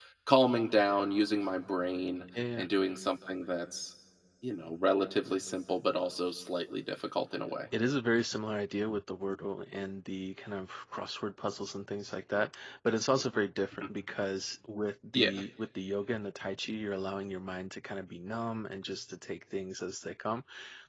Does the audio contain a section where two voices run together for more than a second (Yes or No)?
No